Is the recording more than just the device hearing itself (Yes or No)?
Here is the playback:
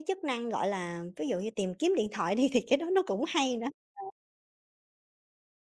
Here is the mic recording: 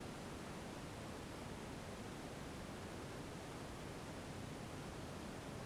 No